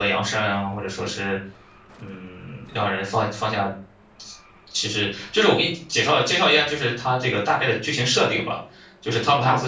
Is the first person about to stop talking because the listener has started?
Yes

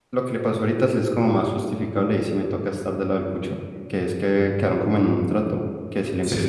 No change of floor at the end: Yes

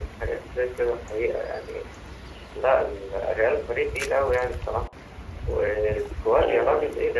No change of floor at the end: Yes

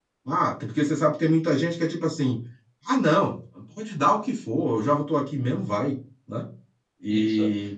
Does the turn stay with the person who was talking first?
Yes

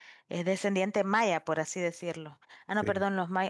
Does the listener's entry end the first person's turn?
No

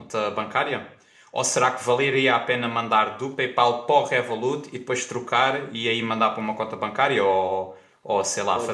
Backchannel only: No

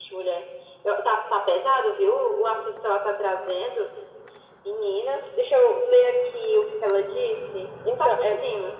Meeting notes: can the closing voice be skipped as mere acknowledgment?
No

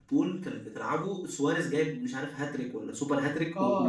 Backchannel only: No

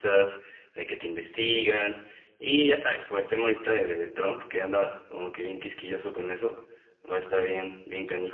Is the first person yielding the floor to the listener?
No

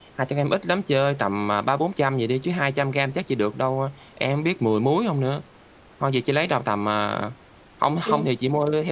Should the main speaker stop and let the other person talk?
No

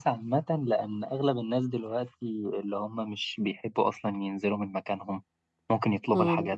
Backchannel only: Yes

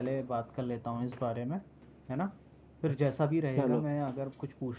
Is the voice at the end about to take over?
No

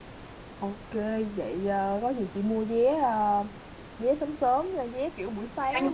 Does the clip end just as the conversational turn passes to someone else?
No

